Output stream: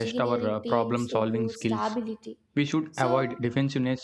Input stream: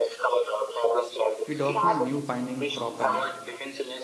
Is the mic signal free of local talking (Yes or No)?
No